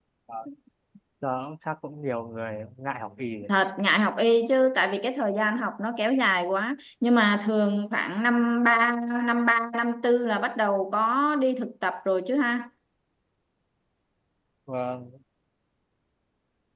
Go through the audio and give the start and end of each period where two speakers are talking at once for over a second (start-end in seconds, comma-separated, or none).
none